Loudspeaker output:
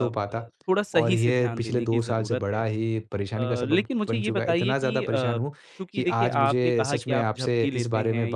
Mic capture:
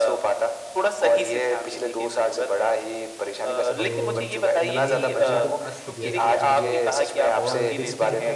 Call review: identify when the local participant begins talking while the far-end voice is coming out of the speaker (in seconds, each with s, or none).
3.8 s